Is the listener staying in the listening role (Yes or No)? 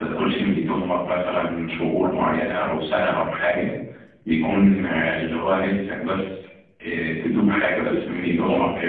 No